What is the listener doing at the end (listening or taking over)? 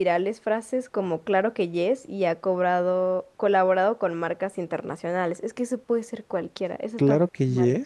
taking over